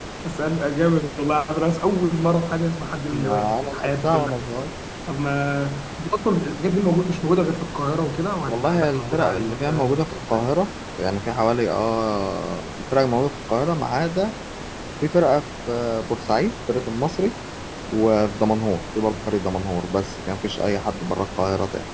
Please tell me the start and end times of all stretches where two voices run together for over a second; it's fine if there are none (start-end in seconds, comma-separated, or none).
3.1-4.5, 8.5-10.6